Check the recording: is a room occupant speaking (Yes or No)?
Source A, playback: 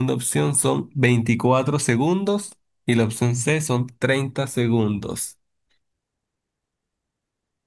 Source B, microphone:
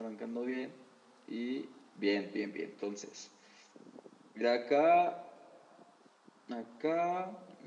Yes